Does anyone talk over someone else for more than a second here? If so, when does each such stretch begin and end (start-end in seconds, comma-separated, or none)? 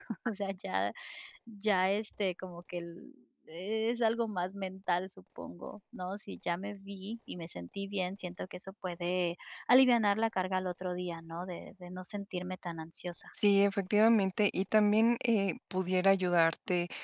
none